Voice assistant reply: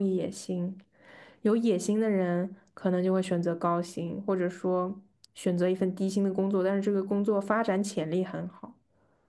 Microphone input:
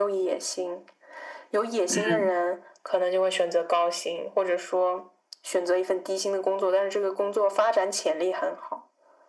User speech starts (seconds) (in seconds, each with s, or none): 1.9 s